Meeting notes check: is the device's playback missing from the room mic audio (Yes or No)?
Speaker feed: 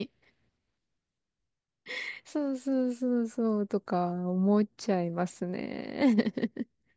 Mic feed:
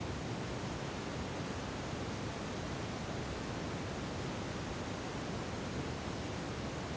Yes